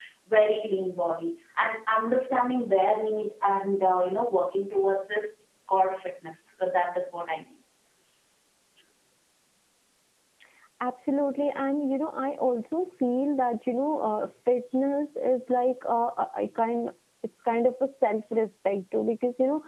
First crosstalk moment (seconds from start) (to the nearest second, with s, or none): none